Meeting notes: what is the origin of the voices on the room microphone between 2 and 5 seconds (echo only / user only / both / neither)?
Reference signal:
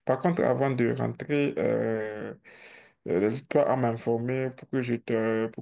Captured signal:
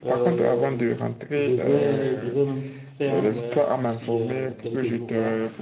both